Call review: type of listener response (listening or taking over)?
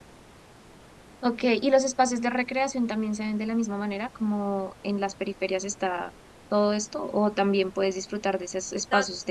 listening